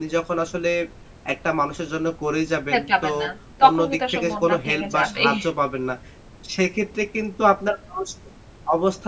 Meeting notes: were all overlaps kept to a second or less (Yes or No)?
No